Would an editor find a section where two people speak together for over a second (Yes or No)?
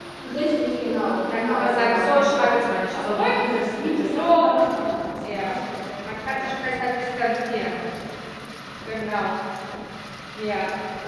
Yes